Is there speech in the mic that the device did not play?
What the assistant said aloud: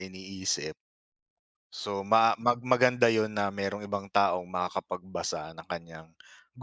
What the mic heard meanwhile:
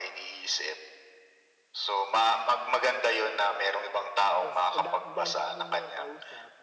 Yes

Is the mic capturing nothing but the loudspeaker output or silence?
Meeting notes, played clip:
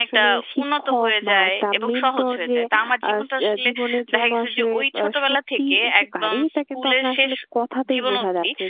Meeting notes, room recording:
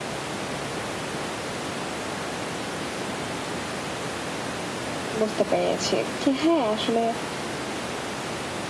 No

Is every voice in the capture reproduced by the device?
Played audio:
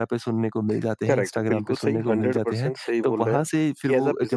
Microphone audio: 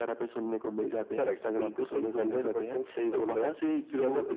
Yes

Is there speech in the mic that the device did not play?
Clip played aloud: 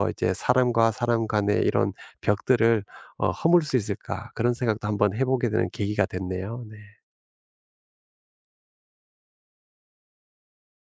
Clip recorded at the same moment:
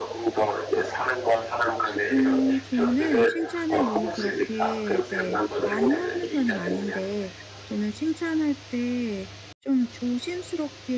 Yes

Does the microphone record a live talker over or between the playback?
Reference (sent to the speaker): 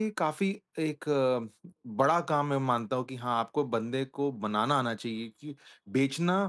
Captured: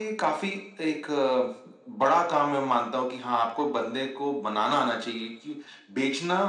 No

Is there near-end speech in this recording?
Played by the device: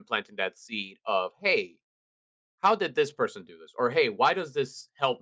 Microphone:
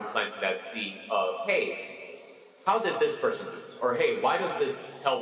No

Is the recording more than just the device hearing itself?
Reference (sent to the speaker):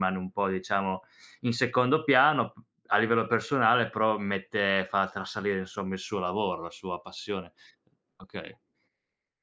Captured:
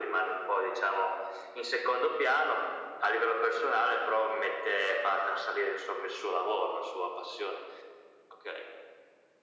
No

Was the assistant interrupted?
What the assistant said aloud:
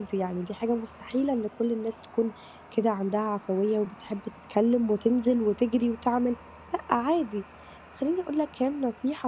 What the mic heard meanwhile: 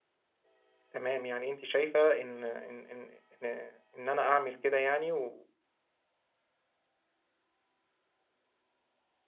Yes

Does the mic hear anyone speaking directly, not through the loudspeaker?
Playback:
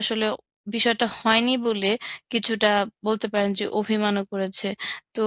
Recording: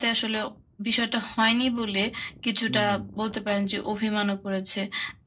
Yes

